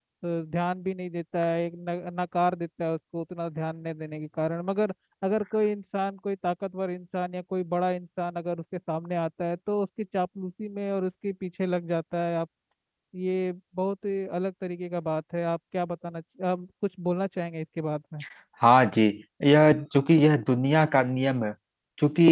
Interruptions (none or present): none